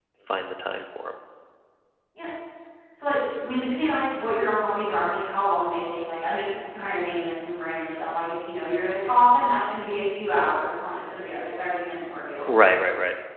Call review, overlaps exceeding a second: none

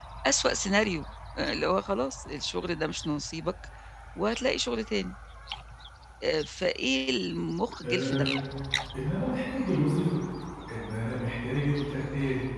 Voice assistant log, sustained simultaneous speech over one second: none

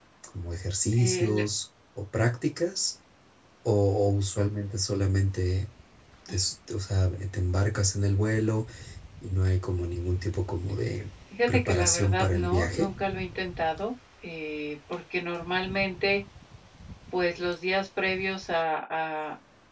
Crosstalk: present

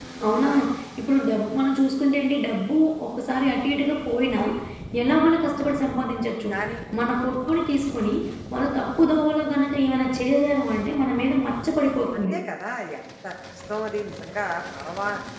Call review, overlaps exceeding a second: none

